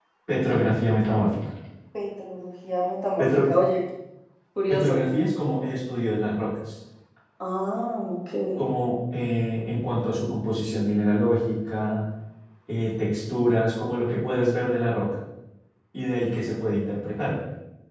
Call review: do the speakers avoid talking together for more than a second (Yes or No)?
Yes